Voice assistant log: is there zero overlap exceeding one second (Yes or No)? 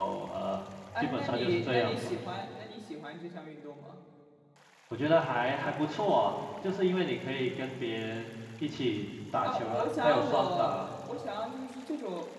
No